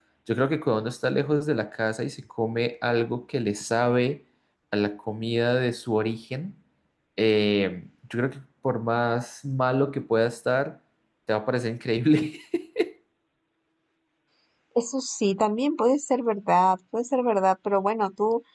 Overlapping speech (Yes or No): No